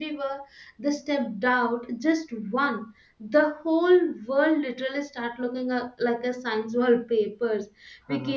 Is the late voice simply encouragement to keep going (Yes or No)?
Yes